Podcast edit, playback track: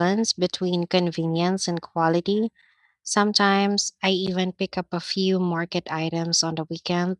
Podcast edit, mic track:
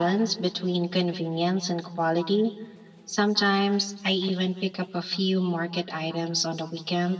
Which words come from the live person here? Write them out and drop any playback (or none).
none